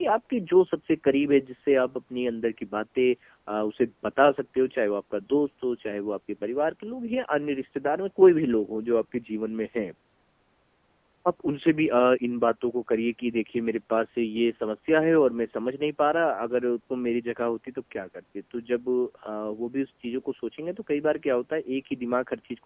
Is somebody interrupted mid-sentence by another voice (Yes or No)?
No